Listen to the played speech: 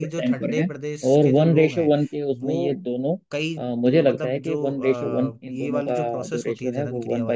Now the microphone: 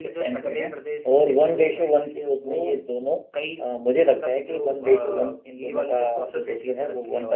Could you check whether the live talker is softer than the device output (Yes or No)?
Yes